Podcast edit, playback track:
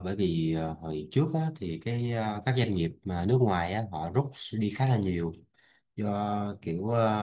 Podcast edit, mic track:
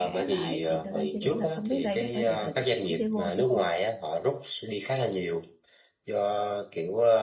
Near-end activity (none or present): present